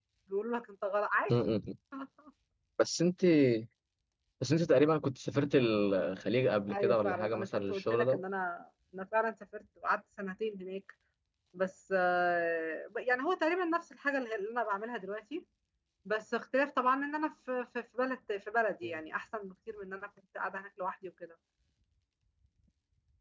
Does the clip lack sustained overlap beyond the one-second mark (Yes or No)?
No